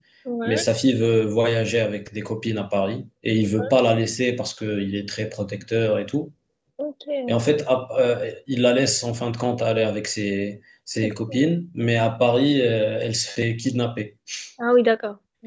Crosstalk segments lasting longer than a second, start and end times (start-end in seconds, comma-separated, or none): none